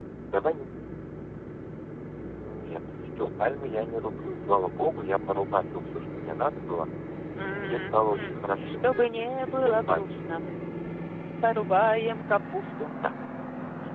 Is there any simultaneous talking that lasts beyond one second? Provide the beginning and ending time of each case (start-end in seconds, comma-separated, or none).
7.5-10.1